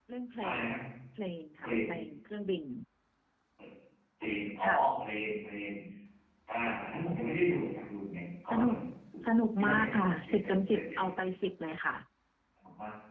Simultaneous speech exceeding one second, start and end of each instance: 9.6-11.0

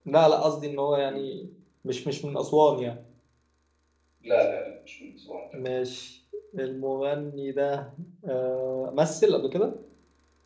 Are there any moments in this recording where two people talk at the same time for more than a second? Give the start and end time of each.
none

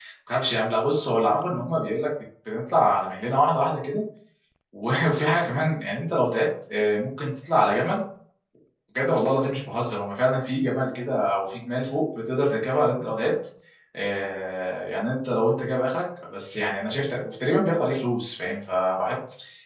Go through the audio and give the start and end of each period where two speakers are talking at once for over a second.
none

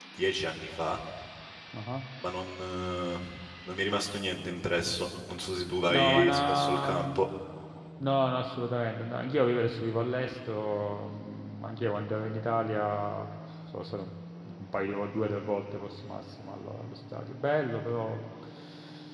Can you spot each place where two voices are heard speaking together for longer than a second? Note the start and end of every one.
5.9-7.2

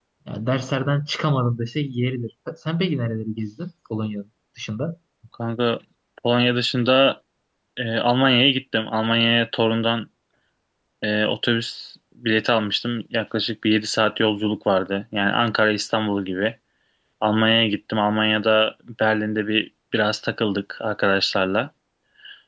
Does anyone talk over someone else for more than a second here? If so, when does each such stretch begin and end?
none

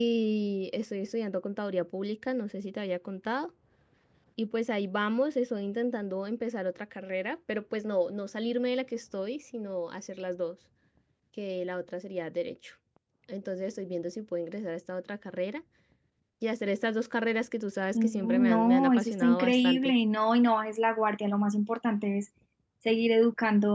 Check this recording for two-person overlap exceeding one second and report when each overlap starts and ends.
17.9-19.9

